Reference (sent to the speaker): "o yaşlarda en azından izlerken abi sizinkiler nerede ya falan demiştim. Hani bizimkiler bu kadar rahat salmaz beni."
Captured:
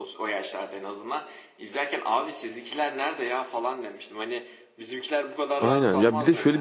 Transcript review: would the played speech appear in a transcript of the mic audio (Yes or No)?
Yes